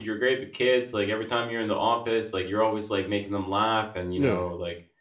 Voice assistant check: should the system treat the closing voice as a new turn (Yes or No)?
No